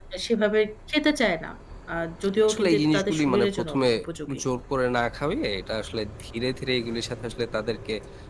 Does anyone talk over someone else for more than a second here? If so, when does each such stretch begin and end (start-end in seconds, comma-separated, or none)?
2.4-3.9